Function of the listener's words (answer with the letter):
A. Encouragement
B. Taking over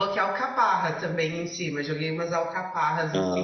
B